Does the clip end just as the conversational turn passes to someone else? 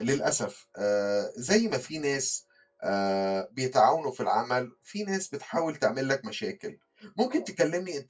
No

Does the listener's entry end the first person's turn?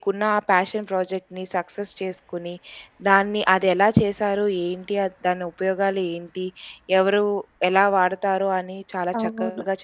No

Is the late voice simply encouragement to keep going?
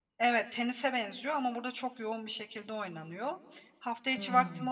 Yes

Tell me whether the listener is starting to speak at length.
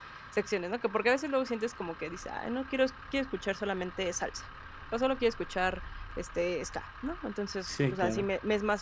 No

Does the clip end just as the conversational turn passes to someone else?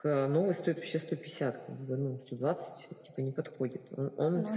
No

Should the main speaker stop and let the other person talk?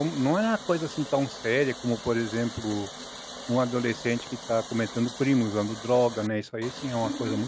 Yes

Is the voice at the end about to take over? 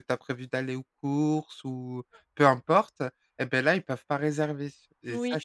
Yes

